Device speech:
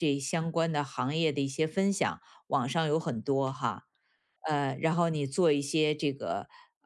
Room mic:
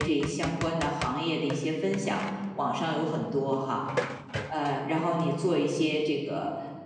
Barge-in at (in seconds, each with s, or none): none